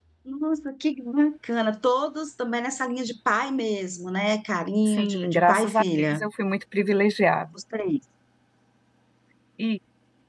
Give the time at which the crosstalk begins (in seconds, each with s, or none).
4.9 s